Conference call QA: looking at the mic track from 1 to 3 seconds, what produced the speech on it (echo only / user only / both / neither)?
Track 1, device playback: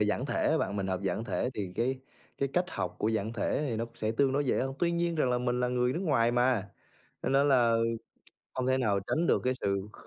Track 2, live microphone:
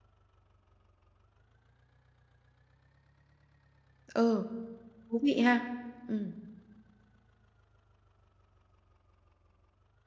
neither